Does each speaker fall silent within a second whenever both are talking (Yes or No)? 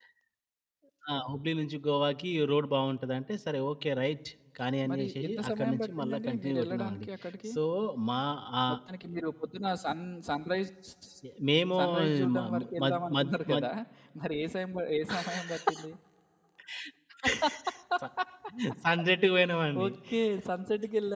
No